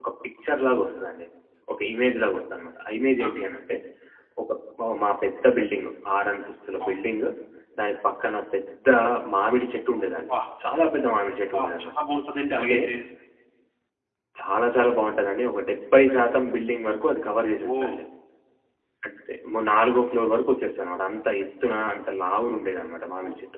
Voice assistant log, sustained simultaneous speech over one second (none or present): none